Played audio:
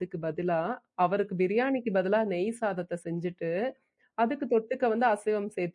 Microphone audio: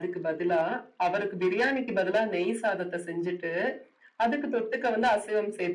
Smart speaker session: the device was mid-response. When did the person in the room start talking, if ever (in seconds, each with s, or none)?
none